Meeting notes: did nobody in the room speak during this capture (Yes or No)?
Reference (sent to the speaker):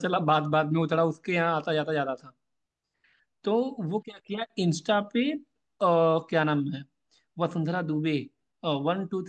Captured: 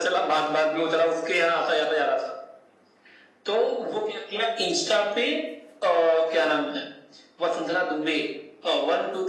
Yes